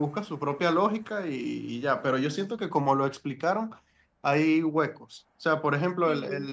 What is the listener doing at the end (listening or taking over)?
listening